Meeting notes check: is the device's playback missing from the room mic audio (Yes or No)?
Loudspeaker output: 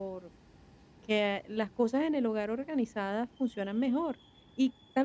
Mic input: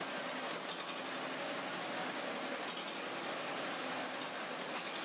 Yes